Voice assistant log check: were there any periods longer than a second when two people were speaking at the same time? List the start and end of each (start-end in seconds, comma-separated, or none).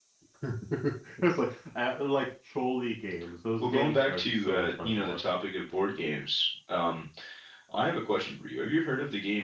3.6-5.2